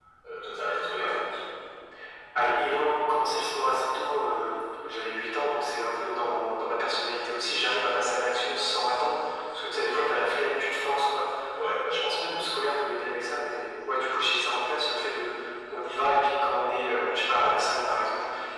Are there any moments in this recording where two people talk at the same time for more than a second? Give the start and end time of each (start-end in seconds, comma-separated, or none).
none